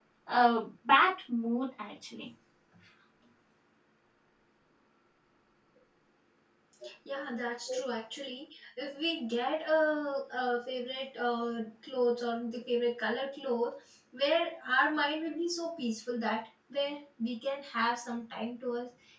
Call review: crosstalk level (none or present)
none